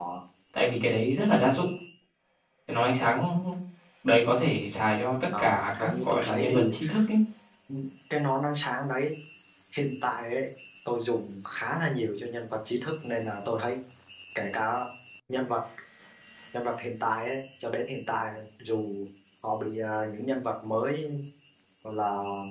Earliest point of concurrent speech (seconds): 5.3 s

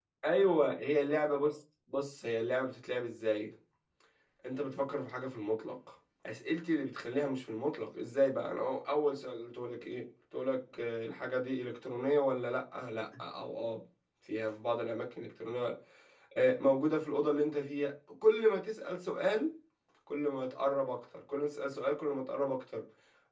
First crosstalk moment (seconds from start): none

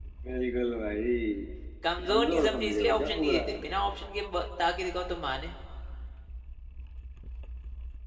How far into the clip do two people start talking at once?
2.1 s

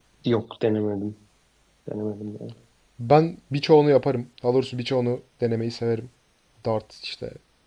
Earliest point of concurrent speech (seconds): none

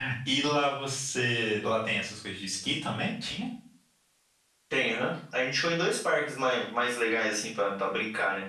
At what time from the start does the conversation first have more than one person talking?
none

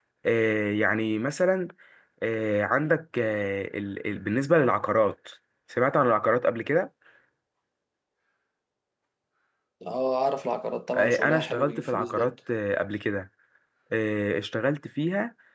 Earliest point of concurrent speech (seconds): 10.9 s

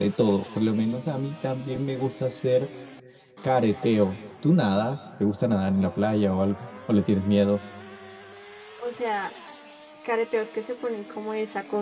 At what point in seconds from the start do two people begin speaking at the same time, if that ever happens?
none

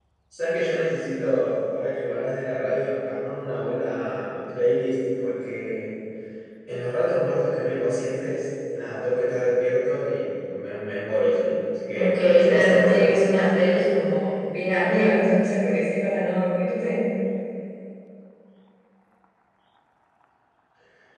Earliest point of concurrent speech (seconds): 11.9 s

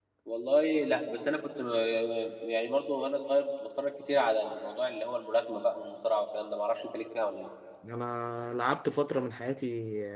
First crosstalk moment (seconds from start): none

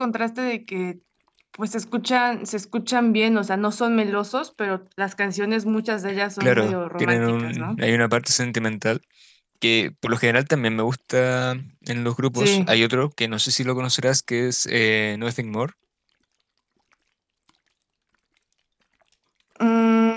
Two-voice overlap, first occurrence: 6.4 s

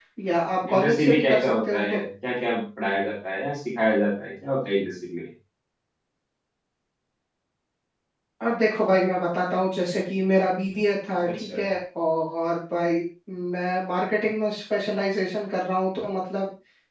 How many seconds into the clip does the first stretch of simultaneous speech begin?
0.7 s

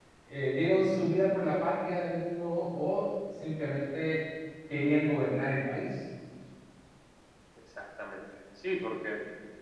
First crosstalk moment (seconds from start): none

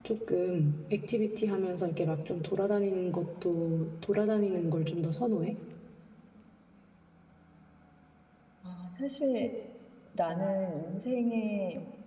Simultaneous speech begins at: none

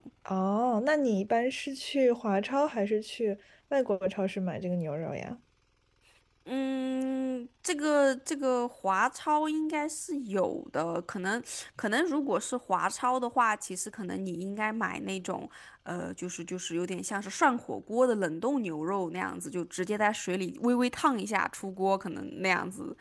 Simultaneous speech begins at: none

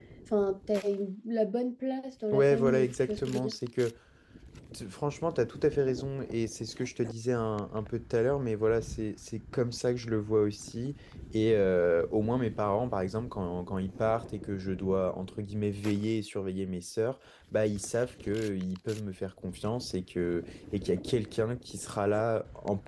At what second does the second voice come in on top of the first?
2.3 s

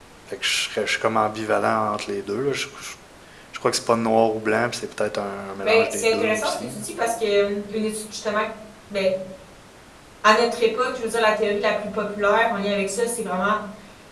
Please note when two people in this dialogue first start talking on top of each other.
5.6 s

